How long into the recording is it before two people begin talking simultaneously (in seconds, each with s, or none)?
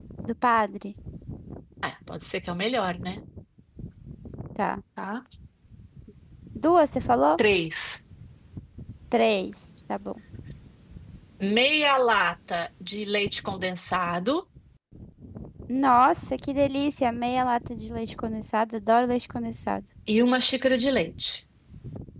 none